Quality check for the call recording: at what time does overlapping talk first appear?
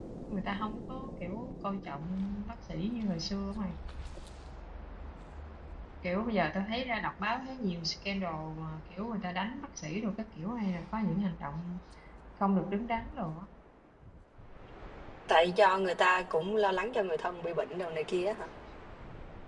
none

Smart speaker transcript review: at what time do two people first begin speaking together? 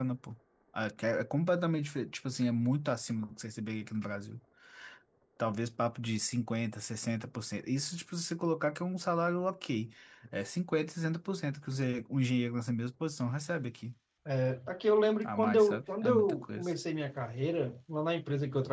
15 s

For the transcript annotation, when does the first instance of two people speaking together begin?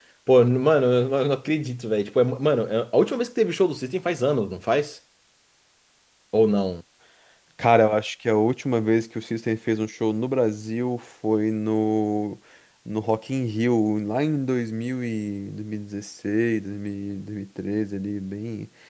none

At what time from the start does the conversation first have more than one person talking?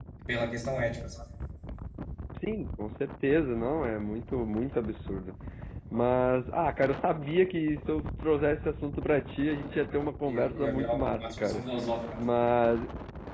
10 s

